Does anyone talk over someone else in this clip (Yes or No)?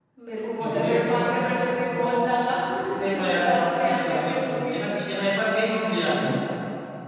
Yes